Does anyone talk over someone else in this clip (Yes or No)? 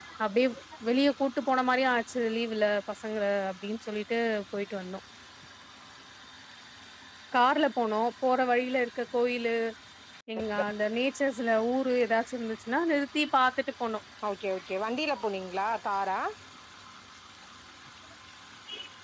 No